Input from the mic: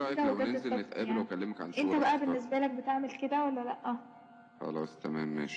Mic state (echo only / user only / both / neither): echo only